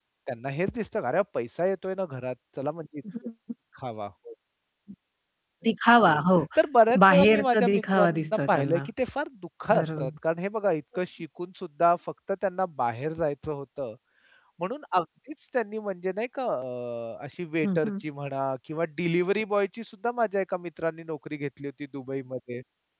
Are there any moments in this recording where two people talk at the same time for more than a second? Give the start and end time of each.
7.1-8.8

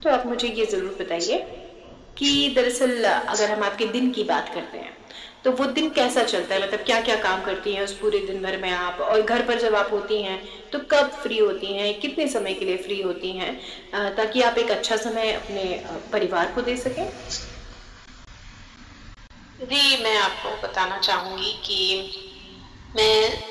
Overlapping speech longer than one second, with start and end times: none

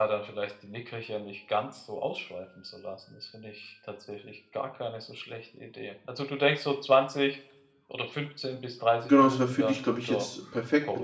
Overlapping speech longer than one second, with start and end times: 9.0-10.3

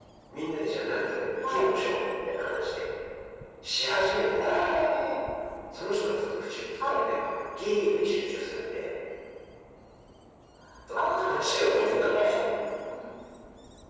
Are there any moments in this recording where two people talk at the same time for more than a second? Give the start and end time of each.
10.9-12.4

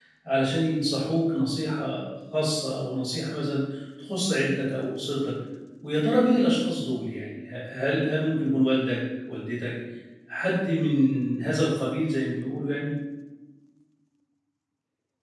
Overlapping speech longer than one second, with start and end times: none

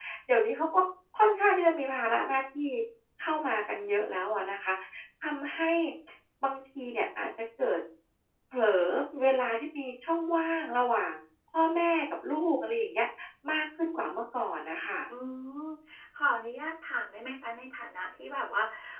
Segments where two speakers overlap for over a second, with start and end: none

